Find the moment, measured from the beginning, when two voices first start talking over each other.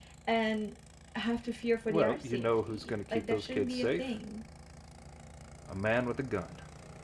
1.9 s

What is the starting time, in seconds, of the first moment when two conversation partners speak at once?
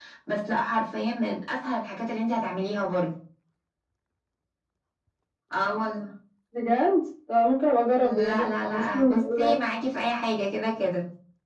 8.0 s

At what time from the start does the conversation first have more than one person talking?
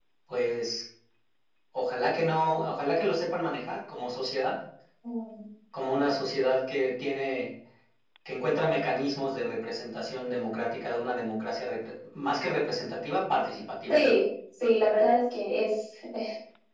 none

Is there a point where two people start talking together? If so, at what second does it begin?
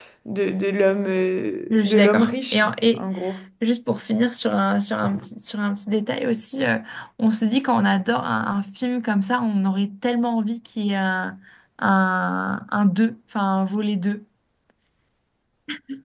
1.7 s

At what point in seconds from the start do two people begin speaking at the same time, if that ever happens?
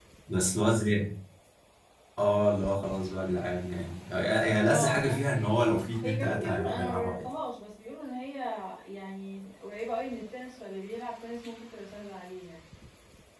4.7 s

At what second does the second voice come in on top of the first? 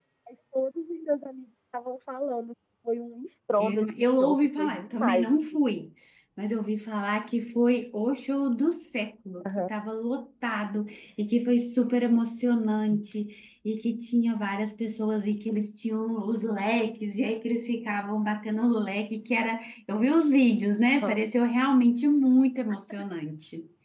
3.6 s

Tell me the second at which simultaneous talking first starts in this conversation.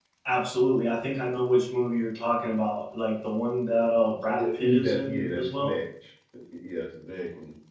4.3 s

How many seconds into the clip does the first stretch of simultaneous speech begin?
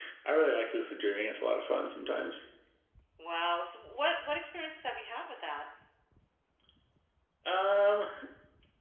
none

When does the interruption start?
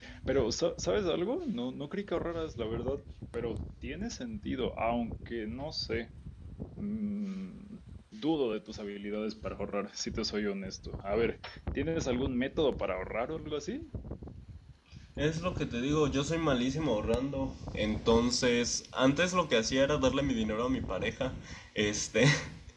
none

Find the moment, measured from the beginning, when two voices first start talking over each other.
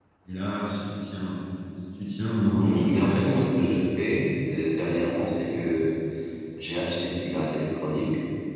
2.6 s

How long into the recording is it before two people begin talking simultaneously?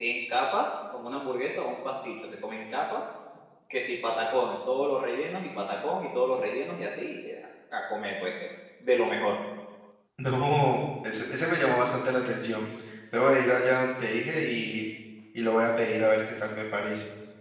none

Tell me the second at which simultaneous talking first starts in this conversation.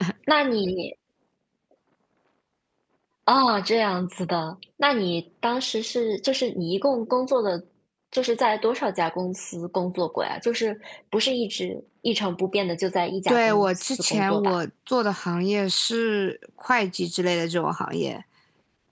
13.3 s

